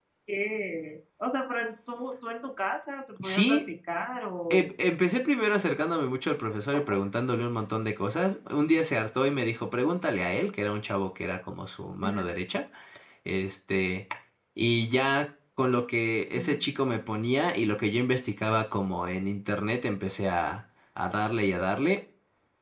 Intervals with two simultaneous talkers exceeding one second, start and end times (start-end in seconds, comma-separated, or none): none